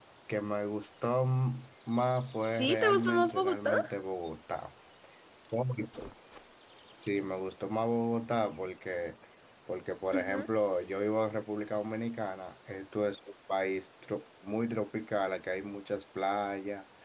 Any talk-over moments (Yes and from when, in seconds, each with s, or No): Yes, from 2.4 s